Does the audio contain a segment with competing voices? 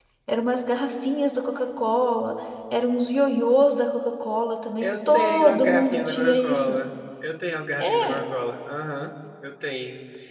Yes, from 4.8 s

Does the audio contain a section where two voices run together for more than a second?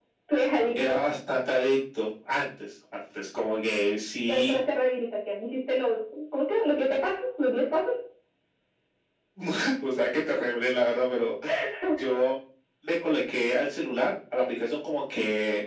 No

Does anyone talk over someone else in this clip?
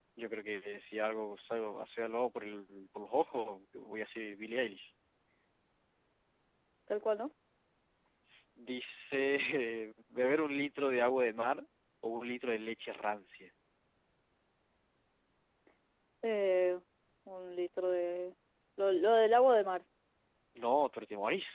No

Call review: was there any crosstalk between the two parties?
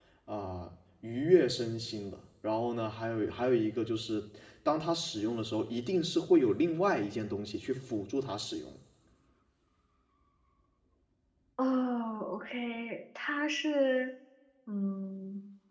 No

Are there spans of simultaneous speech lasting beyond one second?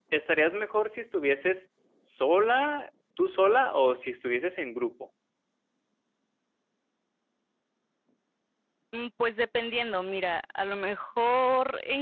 No

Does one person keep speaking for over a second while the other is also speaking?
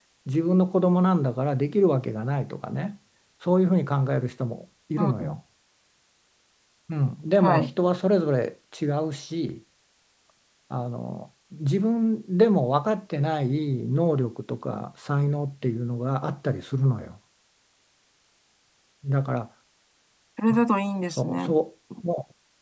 No

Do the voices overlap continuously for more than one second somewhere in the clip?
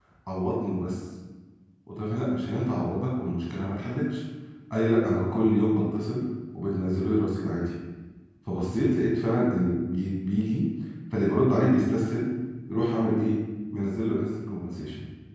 No

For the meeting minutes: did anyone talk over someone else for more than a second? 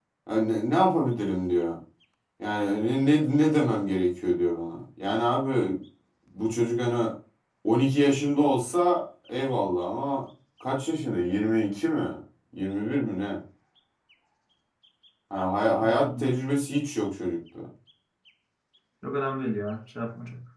No

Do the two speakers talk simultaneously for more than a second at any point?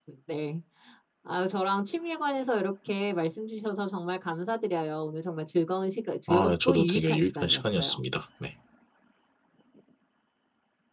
Yes, from 6.3 s

